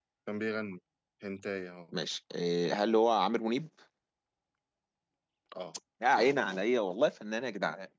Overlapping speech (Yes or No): No